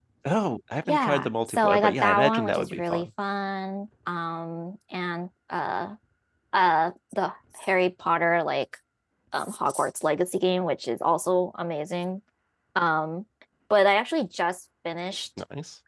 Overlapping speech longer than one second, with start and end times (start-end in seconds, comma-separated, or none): 0.9-3.1